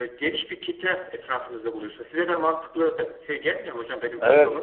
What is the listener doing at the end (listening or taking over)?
taking over